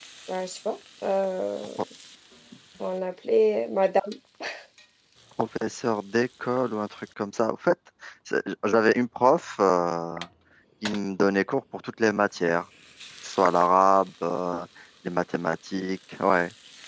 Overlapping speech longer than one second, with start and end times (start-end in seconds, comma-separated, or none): none